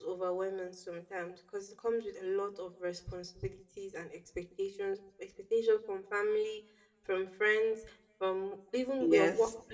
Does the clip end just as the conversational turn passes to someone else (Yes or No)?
No